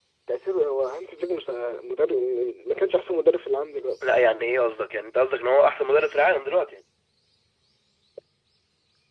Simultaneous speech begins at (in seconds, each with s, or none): none